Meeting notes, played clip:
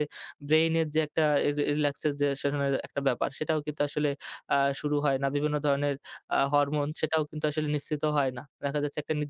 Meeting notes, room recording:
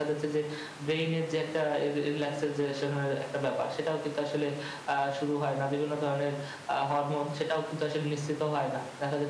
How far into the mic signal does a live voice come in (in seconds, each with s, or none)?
none